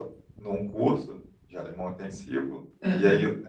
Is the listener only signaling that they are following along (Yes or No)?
Yes